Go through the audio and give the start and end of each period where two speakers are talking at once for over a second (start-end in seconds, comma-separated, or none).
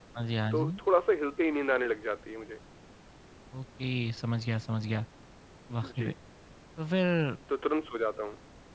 none